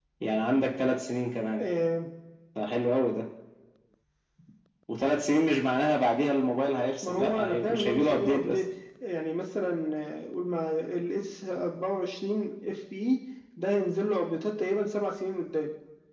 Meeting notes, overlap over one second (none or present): present